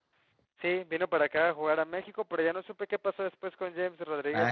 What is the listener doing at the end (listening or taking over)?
taking over